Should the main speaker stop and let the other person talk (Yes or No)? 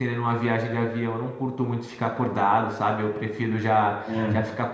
No